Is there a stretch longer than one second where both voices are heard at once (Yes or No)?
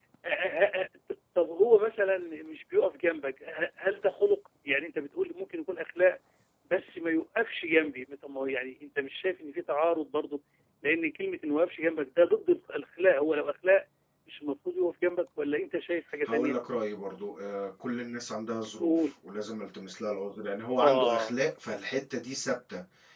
No